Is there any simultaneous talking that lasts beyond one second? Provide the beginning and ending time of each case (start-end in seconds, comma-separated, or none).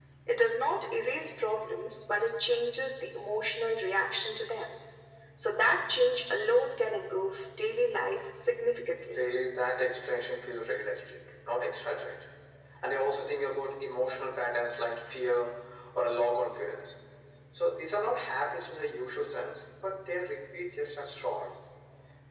none